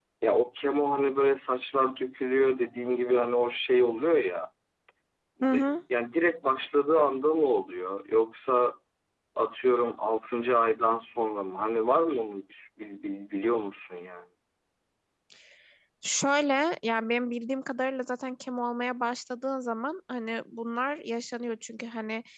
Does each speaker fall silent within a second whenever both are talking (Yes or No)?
Yes